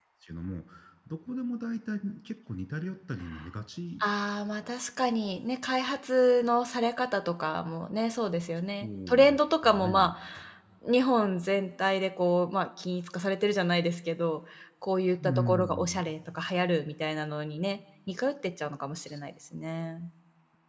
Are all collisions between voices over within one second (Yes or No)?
No